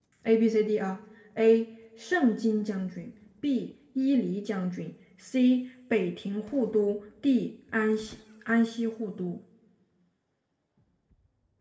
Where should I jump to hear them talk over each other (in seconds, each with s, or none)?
none